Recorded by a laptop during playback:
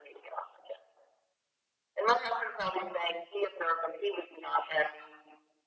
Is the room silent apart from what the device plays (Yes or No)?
Yes